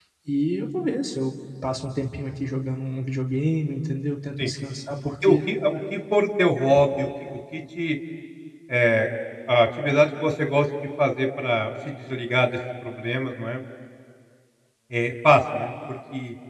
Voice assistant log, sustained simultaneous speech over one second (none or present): none